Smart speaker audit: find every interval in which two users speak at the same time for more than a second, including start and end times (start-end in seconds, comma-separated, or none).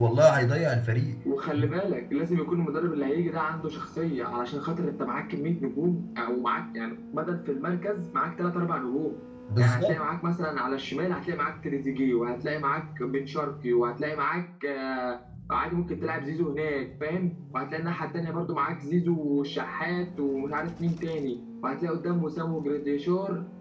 none